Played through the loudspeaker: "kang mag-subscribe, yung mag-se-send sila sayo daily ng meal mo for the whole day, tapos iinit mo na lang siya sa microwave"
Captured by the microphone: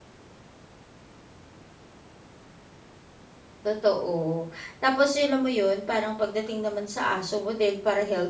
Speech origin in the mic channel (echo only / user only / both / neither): user only